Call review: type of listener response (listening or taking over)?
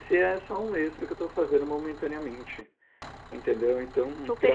listening